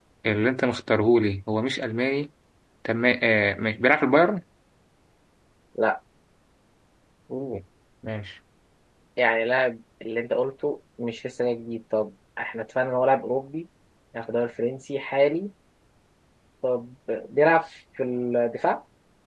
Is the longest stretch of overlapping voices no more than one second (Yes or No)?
Yes